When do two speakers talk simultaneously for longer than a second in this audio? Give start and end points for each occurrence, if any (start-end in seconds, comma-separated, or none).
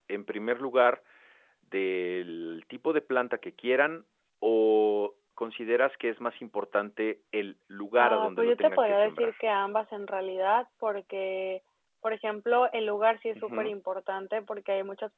8.0-9.3